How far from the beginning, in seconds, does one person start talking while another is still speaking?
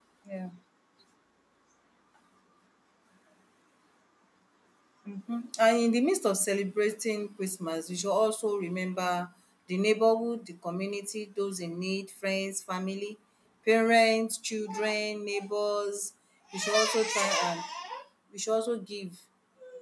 none

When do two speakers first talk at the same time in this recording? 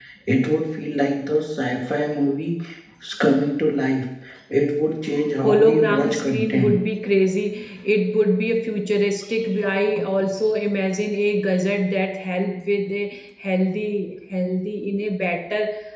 5.4 s

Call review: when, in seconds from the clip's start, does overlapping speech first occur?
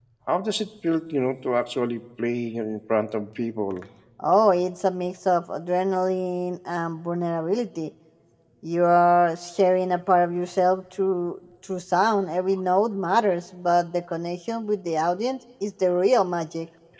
none

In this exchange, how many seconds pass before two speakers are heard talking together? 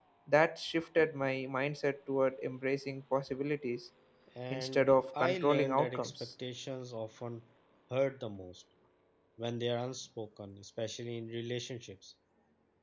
4.5 s

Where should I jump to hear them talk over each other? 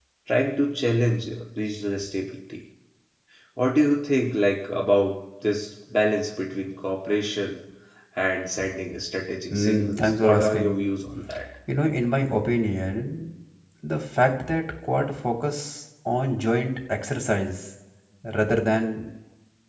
9.5 s

